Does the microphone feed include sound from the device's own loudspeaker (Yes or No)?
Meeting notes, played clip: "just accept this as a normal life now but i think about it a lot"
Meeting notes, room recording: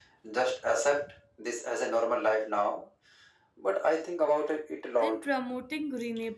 Yes